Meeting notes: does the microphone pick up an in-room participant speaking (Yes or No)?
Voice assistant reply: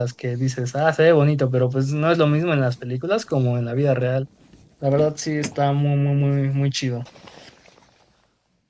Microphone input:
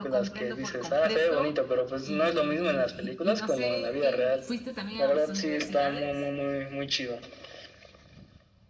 Yes